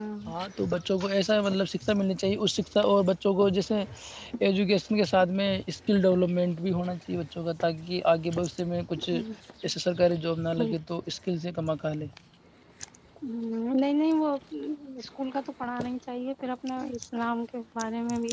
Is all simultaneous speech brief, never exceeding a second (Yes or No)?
Yes